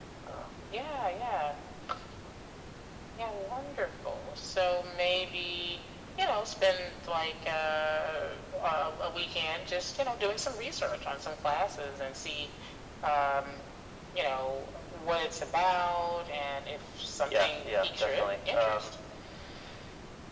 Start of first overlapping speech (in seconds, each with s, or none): 17.2 s